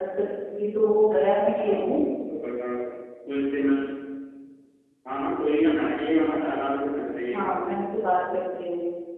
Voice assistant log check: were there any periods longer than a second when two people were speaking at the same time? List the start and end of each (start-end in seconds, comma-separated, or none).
none